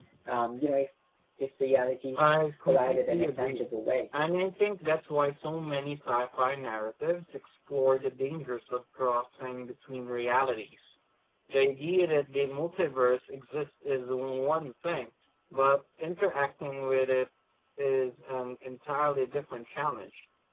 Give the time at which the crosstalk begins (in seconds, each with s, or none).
2.2 s